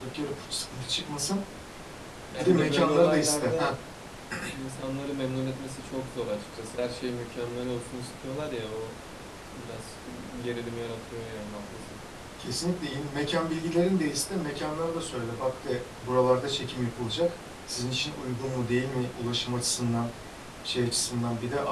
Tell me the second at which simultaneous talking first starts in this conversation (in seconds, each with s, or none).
2.4 s